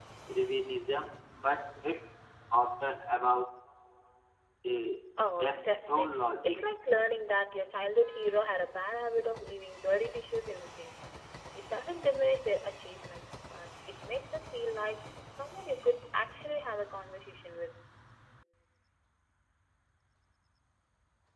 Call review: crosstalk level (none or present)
present